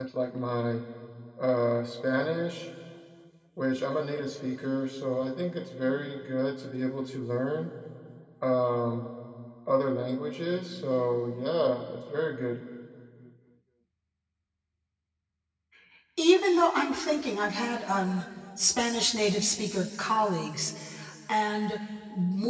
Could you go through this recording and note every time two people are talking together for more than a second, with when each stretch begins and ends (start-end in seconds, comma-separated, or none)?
none